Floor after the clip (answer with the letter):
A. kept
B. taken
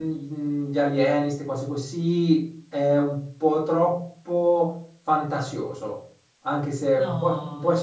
A